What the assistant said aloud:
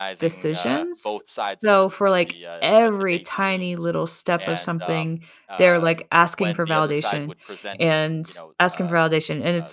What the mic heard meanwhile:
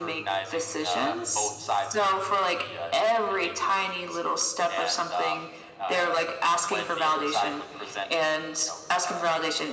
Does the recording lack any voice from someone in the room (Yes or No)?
Yes